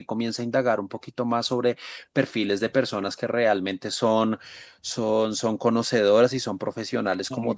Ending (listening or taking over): listening